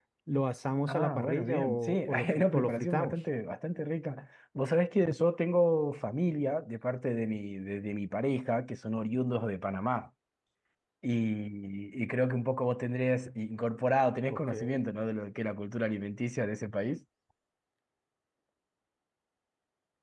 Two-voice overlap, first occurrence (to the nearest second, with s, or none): 1 s